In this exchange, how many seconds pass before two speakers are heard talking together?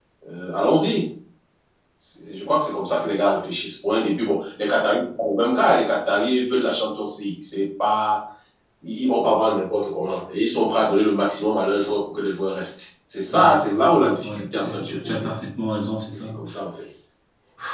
13.3 s

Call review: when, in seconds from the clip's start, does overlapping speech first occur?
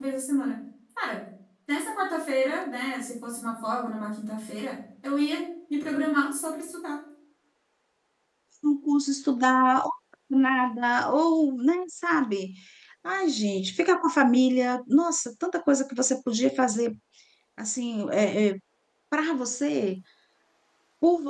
none

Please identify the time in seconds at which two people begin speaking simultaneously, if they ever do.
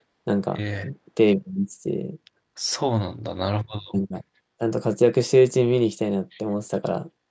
none

